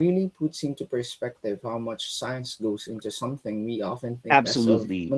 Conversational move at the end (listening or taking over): taking over